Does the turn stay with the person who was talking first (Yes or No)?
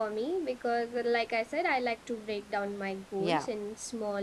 Yes